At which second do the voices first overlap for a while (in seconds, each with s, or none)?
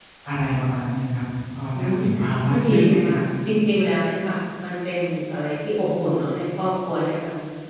1.7 s